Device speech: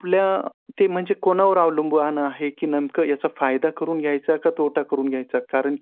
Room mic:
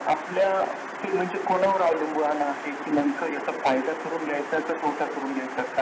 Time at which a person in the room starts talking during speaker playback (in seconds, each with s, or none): none